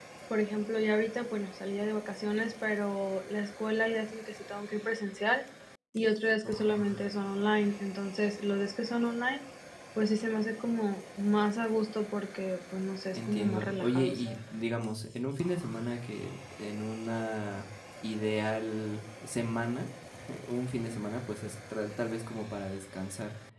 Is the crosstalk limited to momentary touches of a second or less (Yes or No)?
No